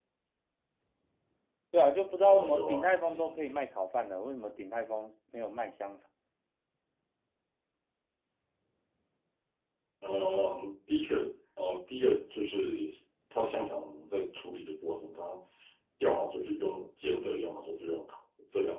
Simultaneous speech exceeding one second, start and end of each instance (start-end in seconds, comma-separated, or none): 2.3-3.6